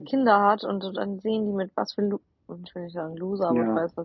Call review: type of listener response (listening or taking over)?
listening